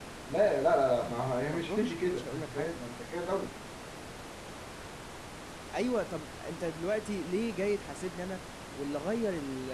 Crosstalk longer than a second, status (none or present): present